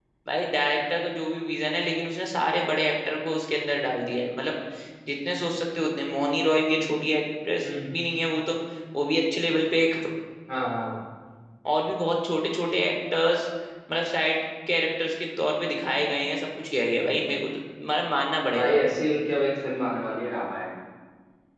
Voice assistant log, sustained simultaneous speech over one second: none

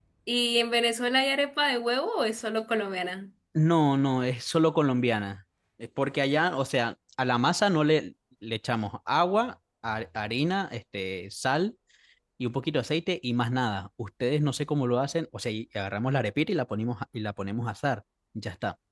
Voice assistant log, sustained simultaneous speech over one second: none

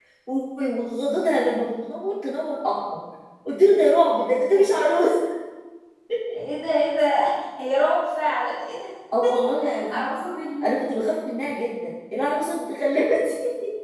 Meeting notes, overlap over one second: none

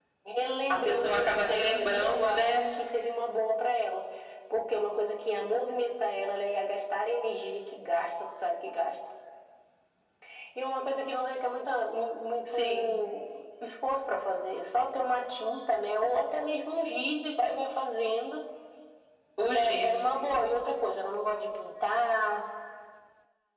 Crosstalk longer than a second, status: present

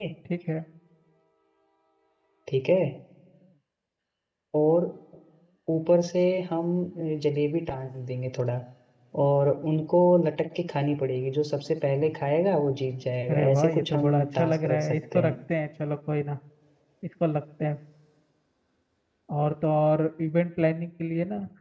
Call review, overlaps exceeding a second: present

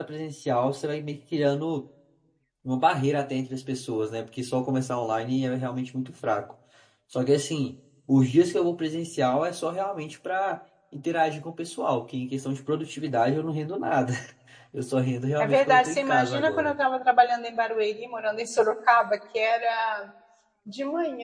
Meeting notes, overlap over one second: present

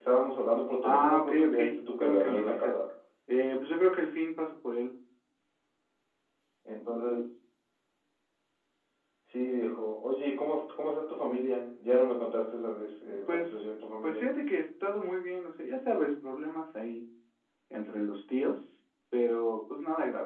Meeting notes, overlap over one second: present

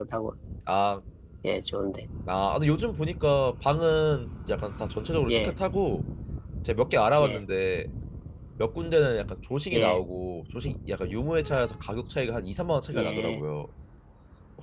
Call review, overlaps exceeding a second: none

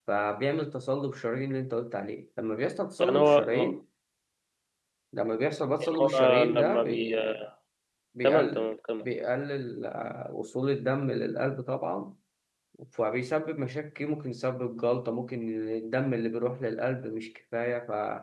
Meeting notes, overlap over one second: present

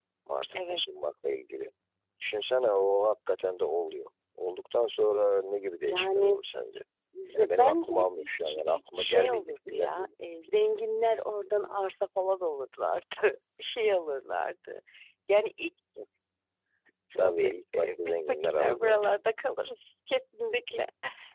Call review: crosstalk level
present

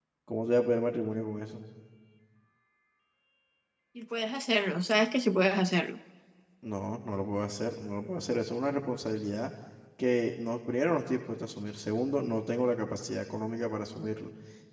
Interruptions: none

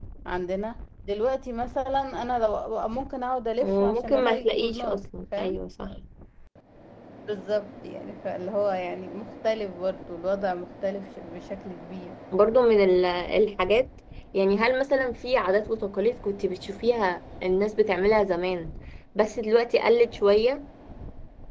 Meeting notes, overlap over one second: present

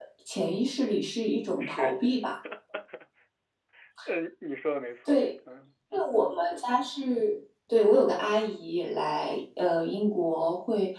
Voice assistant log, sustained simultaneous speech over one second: none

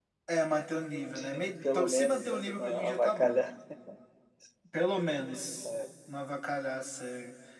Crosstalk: present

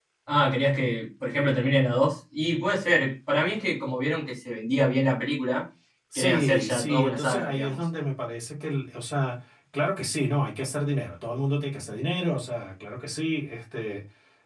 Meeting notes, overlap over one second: present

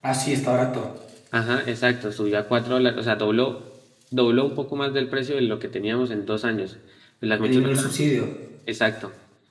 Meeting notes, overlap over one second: none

